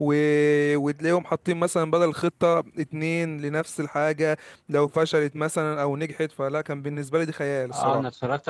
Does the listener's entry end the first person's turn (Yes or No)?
Yes